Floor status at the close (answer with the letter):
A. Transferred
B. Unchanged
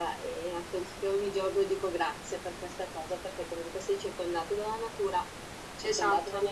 B